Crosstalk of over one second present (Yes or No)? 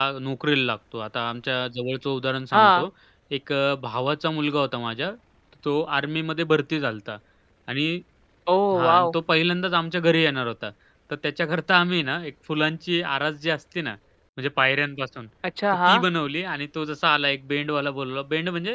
No